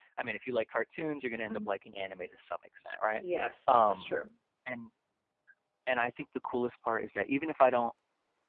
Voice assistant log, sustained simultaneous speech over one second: none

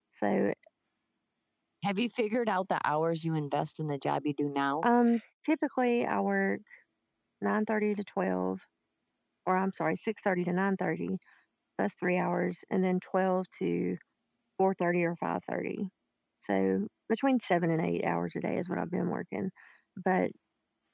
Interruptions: none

